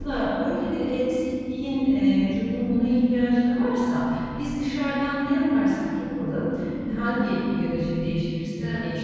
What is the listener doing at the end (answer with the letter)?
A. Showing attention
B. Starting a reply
A